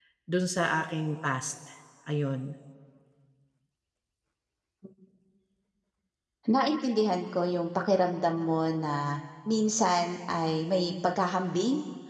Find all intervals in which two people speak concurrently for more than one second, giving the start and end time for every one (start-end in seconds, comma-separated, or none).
none